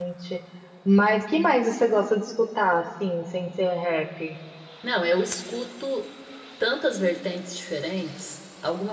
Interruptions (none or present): none